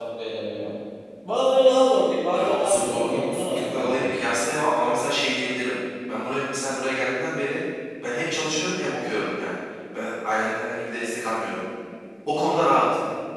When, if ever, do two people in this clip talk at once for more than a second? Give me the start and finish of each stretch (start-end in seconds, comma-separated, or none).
2.3-4.1